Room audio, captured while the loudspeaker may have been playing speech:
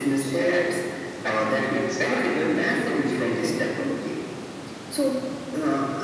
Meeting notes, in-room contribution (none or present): none